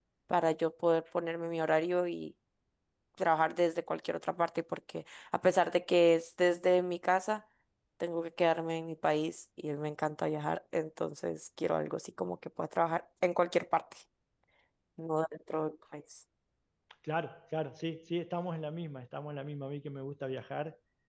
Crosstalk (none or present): none